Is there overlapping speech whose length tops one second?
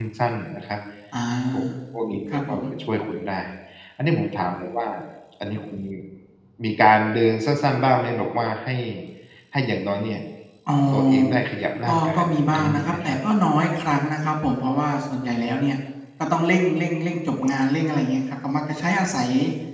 Yes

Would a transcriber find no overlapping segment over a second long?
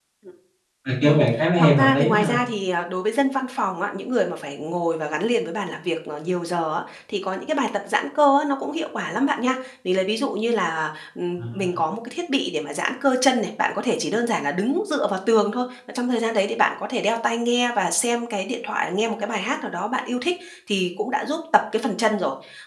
No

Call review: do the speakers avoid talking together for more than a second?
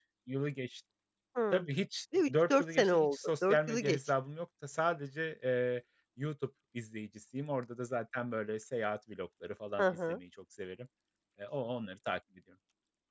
No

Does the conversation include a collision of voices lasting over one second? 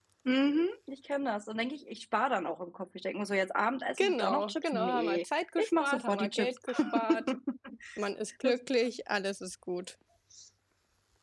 Yes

